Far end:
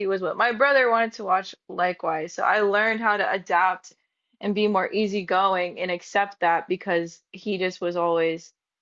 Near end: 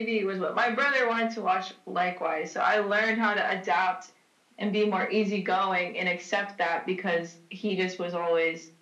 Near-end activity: none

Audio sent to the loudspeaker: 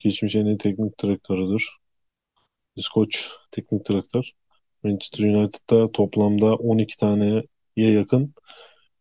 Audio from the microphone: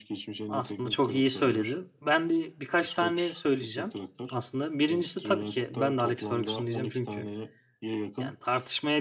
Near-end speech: present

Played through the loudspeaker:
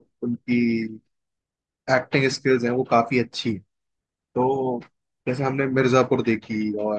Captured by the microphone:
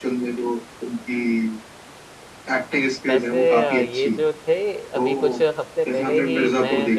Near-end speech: present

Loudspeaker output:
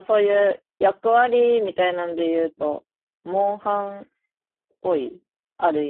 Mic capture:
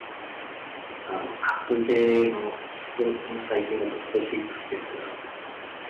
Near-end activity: present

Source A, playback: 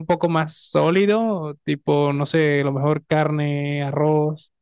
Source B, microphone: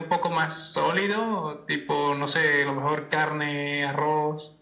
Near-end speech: none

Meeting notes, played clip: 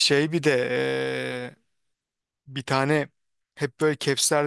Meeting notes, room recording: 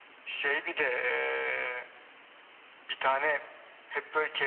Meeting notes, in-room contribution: none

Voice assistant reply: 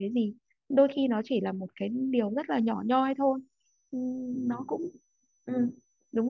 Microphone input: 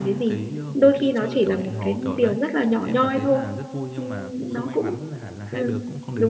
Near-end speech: present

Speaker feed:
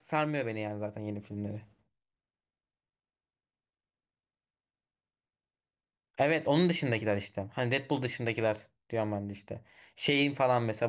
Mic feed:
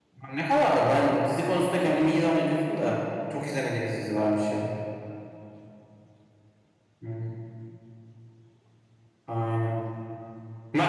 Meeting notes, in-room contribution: present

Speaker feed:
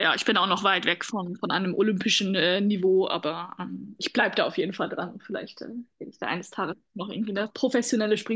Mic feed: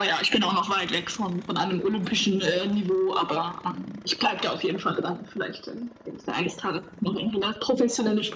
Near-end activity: none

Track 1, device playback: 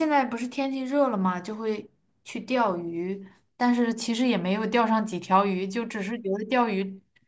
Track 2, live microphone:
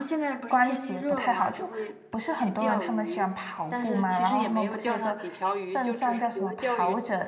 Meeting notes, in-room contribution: present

